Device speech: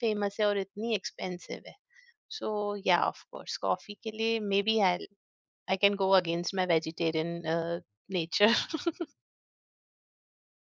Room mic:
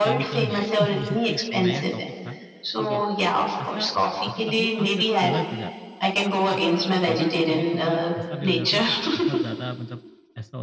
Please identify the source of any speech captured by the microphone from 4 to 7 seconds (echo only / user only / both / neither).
both